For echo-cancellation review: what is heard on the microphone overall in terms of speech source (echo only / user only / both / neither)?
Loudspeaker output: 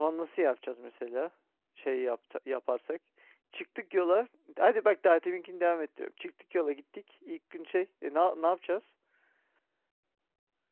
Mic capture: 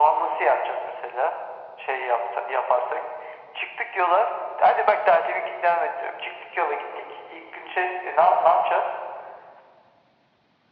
echo only